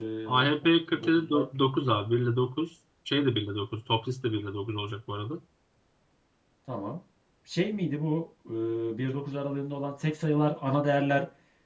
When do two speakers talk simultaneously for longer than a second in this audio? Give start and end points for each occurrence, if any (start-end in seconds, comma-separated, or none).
none